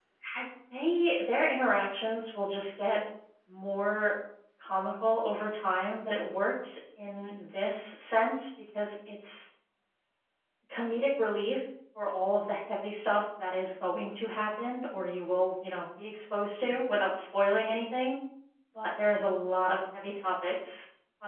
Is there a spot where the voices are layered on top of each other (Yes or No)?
No